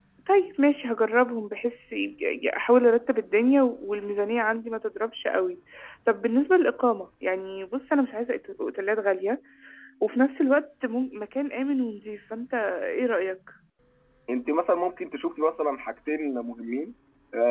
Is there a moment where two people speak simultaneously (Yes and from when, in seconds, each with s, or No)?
No